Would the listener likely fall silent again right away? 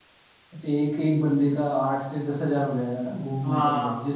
No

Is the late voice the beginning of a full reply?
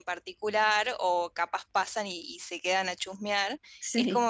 No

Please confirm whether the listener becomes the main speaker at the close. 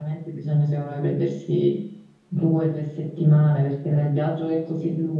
No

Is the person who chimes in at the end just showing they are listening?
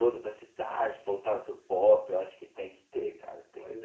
No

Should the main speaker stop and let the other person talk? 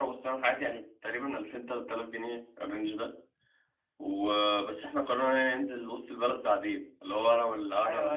Yes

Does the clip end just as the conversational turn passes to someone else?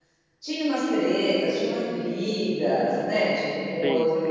Yes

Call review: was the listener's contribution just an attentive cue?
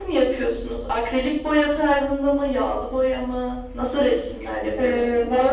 No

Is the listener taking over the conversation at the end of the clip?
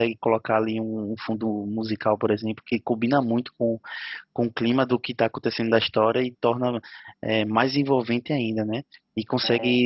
No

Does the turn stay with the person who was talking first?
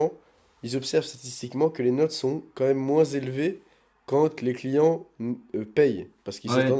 No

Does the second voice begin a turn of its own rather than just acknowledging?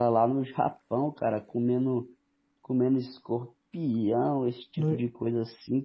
No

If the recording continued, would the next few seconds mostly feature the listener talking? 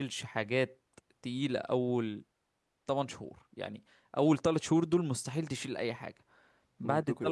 No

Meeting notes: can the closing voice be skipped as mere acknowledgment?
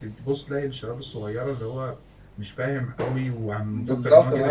No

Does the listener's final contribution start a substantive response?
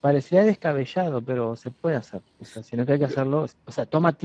No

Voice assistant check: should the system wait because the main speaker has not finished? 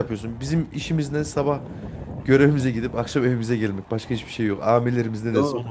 No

